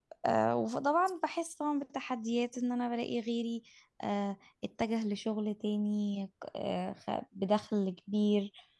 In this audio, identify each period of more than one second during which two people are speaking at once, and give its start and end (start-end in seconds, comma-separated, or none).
none